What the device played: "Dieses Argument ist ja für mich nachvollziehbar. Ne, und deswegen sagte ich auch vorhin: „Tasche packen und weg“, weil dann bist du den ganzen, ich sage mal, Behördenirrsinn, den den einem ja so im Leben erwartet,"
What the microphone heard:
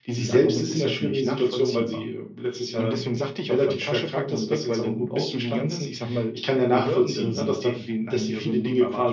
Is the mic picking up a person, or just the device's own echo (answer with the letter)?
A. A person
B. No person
A